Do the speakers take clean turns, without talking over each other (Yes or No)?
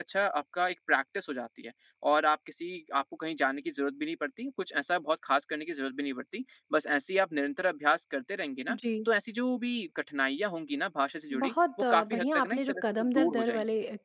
No